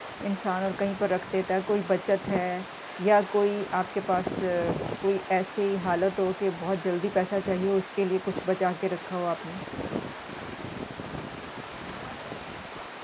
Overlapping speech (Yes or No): No